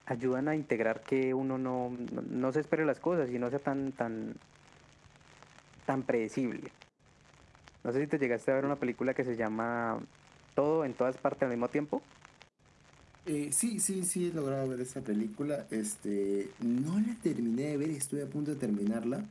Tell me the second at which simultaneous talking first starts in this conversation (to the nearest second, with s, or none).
none